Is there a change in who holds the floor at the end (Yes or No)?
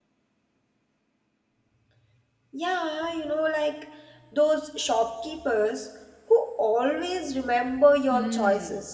Yes